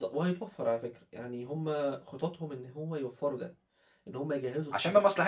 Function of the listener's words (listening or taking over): taking over